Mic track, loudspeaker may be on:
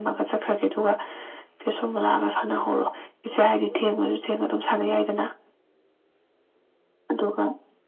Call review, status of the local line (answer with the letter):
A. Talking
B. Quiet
B